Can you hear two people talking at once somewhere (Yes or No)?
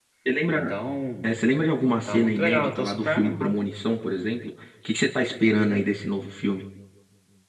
Yes